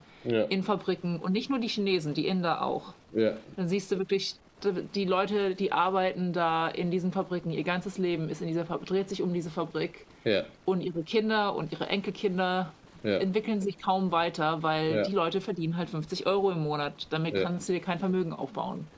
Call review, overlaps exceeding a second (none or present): none